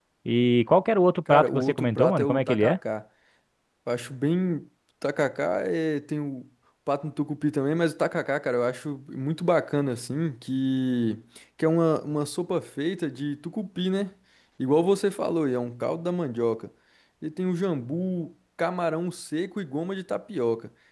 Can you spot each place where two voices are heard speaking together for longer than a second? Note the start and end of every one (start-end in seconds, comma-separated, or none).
1.3-2.8